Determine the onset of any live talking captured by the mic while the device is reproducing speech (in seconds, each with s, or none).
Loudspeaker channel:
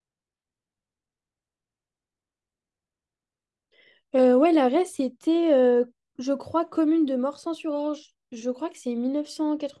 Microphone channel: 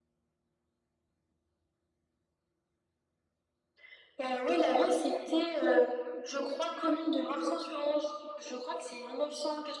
none